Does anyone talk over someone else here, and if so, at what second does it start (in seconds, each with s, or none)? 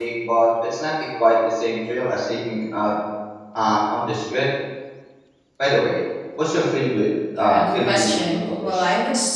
7.4 s